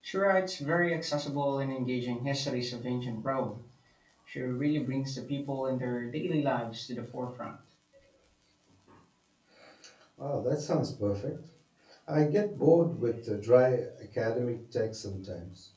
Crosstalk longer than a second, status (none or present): none